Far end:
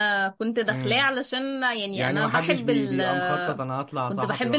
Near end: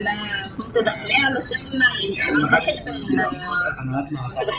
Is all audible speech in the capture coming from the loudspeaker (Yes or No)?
Yes